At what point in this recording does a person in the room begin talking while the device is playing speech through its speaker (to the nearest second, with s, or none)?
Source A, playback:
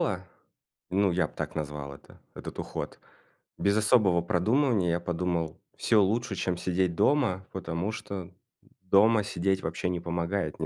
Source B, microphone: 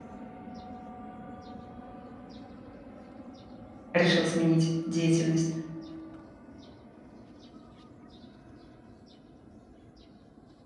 4 s